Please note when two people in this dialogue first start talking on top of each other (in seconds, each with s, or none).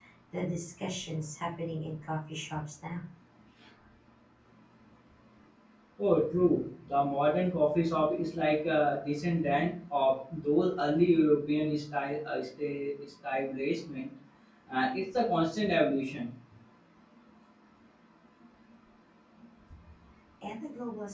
none